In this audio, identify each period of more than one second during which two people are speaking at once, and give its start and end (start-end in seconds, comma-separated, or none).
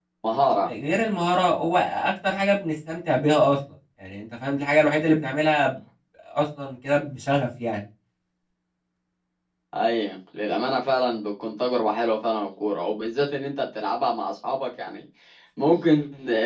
none